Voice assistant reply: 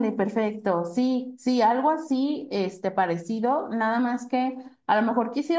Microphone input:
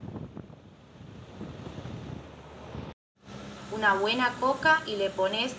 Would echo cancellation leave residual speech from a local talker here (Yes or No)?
Yes